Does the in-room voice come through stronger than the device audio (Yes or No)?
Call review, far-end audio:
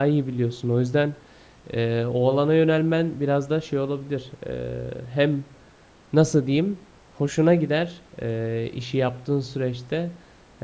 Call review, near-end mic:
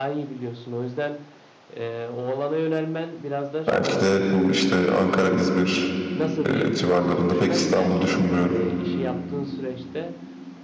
Yes